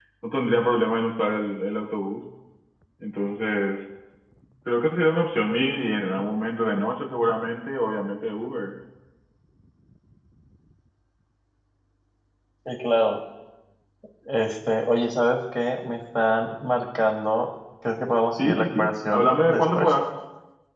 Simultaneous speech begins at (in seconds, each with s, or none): 18.4 s